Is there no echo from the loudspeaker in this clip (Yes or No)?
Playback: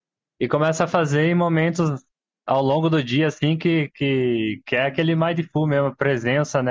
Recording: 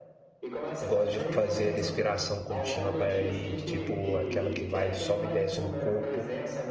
No